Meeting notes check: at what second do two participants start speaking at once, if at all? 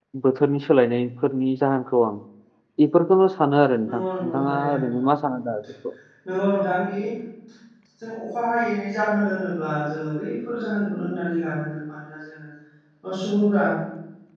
3.8 s

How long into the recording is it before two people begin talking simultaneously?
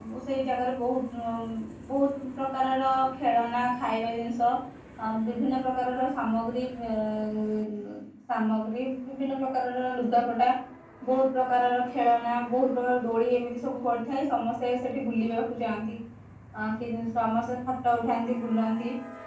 none

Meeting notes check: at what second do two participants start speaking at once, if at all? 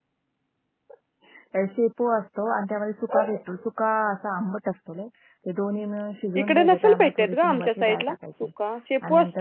6.4 s

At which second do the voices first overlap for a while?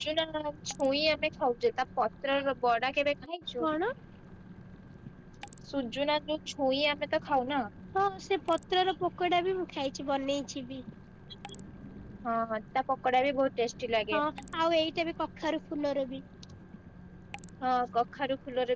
none

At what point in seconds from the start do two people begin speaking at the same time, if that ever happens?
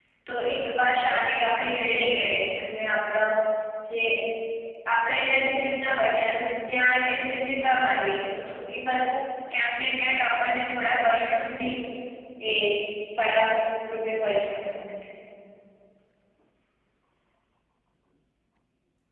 none

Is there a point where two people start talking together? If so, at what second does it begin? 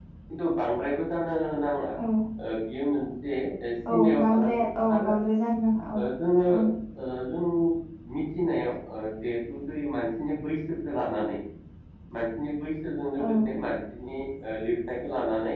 3.9 s

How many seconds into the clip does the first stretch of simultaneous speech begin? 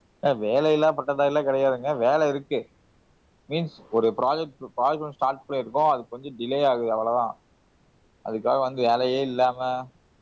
none

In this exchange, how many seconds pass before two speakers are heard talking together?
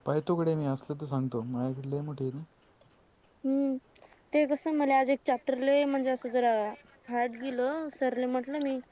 none

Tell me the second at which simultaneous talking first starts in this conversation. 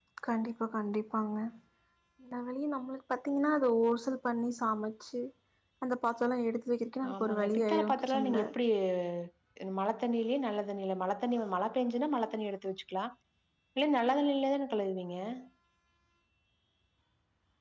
7.0 s

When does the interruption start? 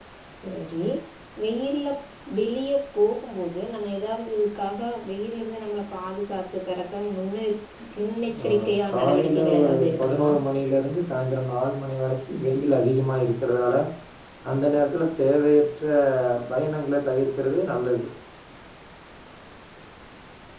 8.4 s

